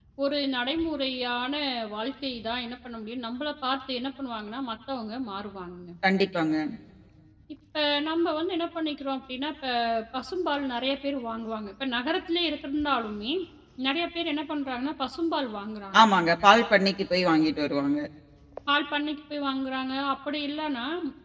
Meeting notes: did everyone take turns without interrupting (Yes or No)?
Yes